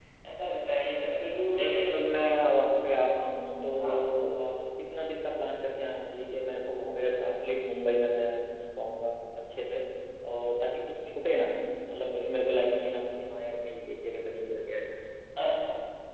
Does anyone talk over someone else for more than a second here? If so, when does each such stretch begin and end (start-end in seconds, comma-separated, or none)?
none